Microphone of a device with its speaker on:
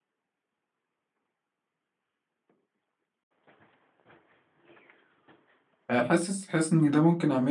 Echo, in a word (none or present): none